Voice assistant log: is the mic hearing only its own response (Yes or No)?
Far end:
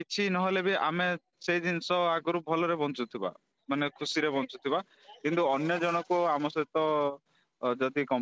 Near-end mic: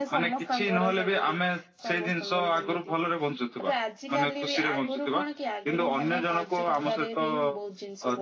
No